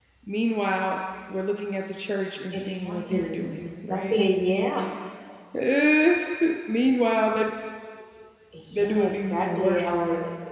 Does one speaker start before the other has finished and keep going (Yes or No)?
Yes